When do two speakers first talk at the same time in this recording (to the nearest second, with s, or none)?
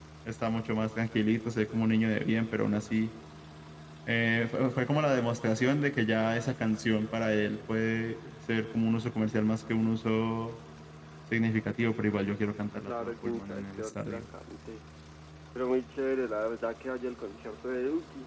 13 s